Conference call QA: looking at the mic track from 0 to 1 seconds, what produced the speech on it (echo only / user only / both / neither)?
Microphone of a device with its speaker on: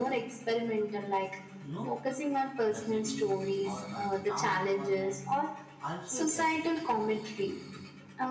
echo only